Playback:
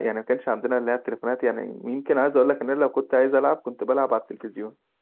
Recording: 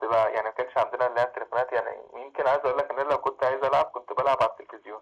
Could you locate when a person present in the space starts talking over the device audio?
none

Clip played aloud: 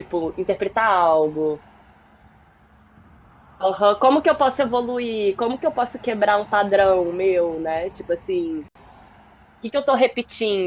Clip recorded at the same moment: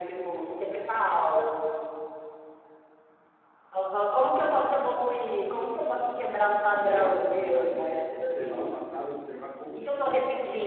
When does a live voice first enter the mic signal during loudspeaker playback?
6.4 s

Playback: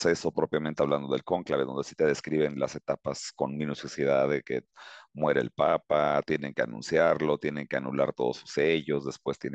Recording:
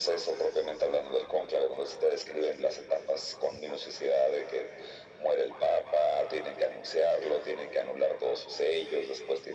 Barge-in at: none

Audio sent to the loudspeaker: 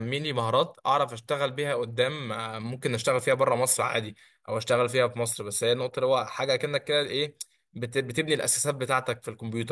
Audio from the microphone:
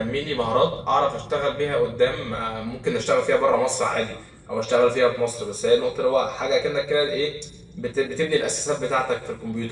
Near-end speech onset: none

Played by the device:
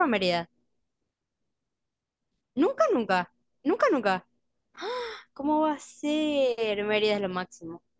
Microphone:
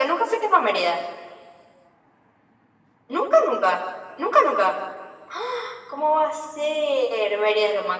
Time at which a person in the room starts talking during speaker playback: none

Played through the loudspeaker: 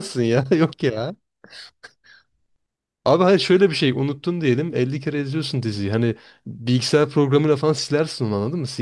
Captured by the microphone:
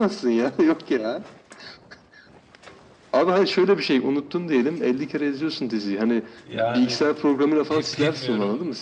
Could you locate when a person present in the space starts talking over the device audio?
6.4 s

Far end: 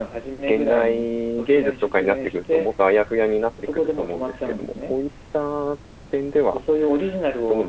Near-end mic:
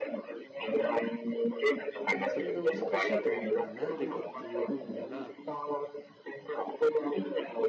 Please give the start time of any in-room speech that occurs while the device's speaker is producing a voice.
2.2 s

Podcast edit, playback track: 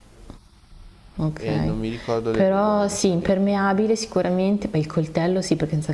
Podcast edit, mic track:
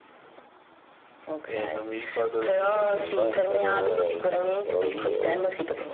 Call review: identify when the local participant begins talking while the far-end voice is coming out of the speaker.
2.6 s

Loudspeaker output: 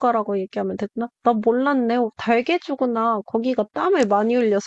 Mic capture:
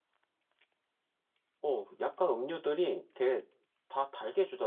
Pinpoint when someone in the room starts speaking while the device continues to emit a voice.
1.6 s

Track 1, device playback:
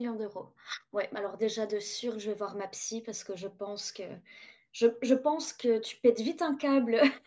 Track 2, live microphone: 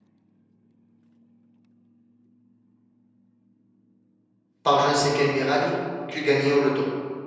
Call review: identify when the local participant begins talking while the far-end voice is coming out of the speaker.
4.6 s

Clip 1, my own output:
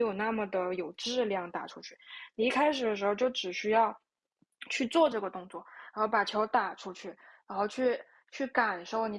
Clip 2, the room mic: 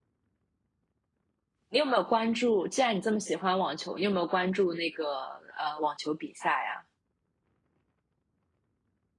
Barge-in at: 1.7 s

